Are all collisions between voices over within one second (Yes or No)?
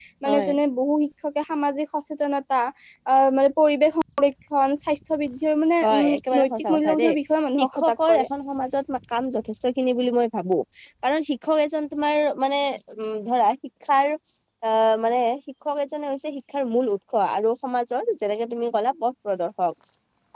No